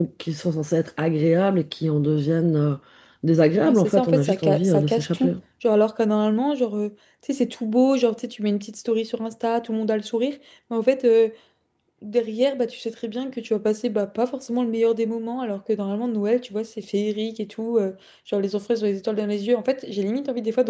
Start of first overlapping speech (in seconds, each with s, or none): 3.6 s